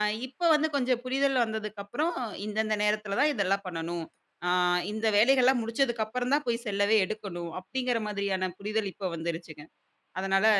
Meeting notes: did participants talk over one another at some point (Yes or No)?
No